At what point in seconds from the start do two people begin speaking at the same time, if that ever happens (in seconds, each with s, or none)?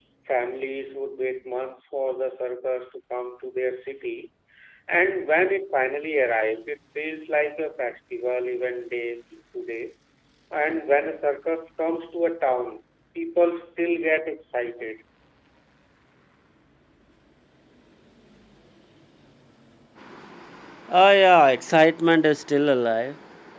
none